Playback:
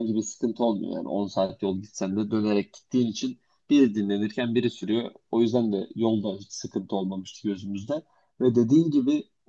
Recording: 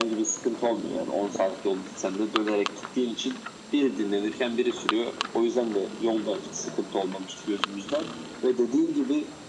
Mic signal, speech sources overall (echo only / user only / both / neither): echo only